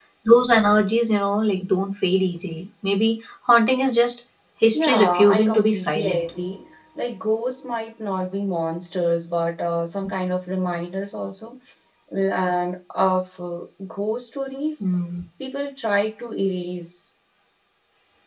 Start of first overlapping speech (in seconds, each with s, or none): 4.7 s